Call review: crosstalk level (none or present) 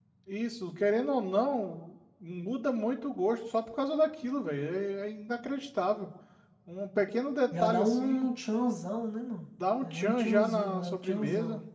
present